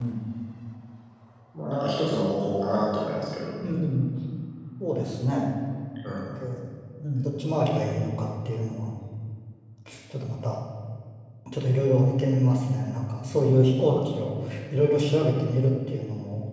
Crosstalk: none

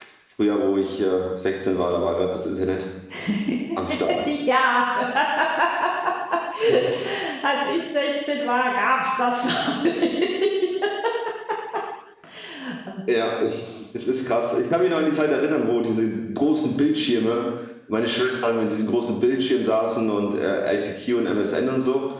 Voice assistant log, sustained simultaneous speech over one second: none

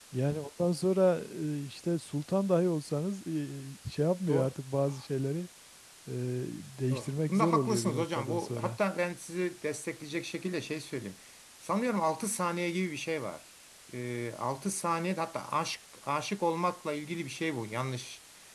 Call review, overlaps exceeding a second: present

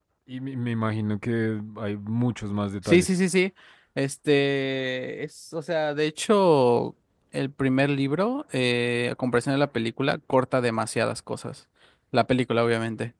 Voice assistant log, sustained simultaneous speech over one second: none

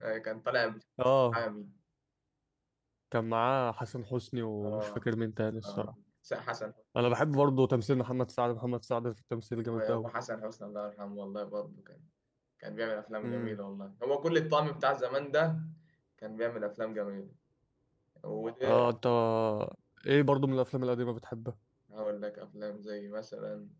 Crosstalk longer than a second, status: none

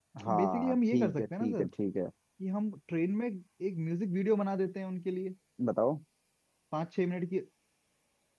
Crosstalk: present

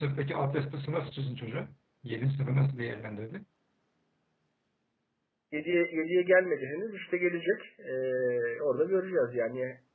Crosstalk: none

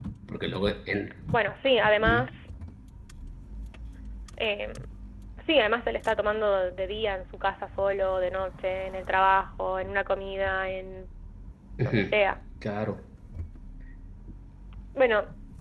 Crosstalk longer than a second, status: none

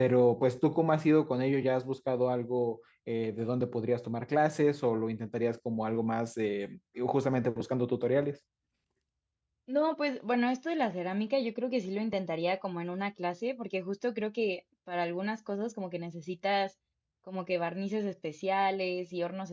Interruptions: none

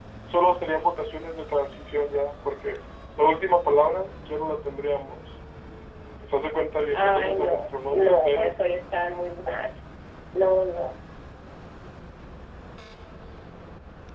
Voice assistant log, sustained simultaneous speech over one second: present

